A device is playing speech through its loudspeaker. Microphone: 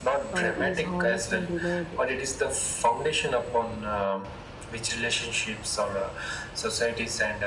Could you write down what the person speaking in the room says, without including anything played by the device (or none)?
uh, is honest and reliable.